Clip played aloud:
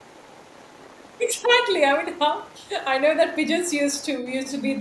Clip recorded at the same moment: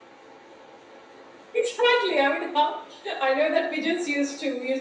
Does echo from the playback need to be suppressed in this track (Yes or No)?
Yes